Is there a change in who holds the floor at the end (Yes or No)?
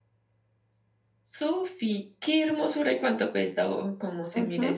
Yes